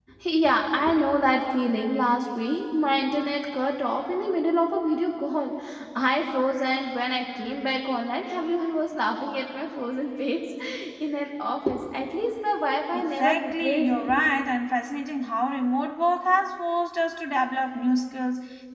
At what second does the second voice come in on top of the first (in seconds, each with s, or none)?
12.9 s